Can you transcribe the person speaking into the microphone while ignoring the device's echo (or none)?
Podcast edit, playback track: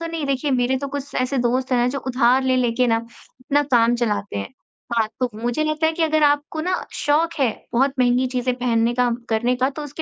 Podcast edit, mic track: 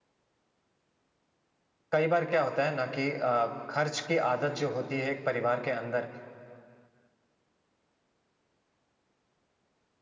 कई बार क्या होता है ना कि अ, खर्च की आदत जो होती है एक परिवार के अंदर,